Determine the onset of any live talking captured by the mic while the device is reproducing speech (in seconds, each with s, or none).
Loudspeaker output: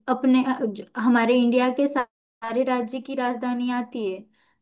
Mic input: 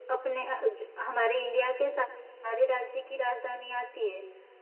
none